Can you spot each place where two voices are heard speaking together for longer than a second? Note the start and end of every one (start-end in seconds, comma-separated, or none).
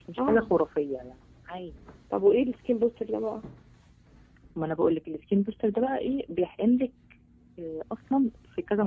none